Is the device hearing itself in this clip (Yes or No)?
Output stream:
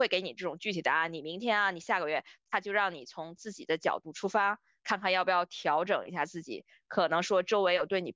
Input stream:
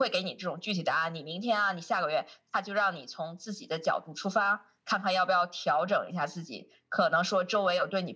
Yes